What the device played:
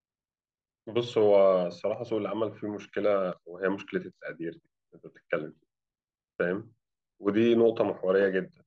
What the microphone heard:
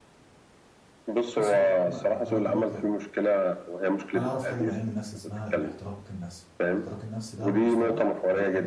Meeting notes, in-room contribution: present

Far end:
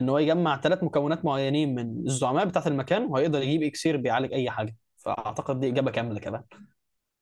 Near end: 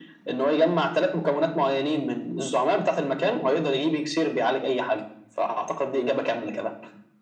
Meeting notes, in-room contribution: none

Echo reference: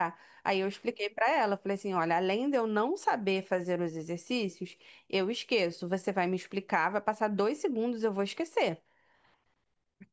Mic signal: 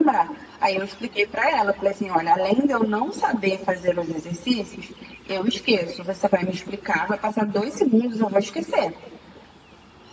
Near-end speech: none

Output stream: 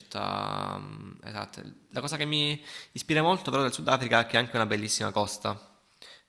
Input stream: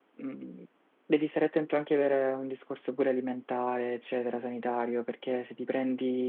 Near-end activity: present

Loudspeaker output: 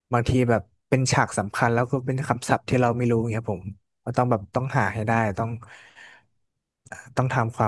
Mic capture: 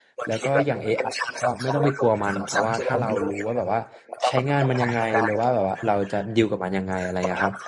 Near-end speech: present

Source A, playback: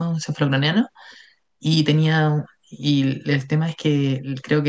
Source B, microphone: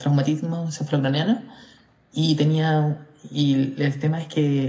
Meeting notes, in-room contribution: none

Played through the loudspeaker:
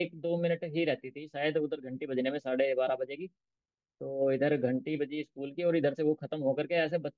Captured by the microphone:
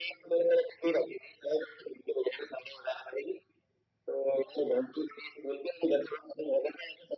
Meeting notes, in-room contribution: none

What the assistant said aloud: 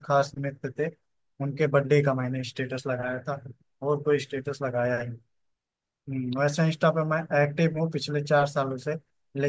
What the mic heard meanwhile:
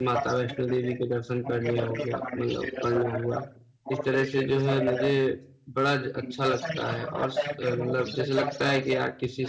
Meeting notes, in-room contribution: present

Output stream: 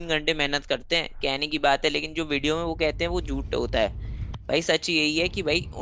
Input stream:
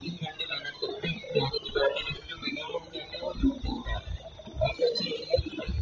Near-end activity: none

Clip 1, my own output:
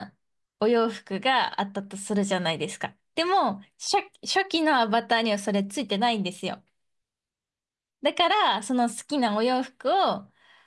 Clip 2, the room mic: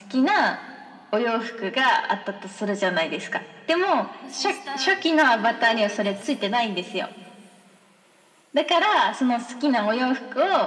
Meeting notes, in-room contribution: present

